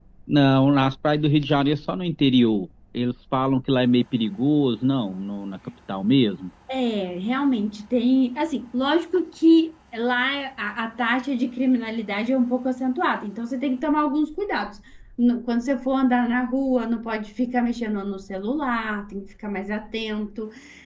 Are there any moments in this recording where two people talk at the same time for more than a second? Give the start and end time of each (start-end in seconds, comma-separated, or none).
none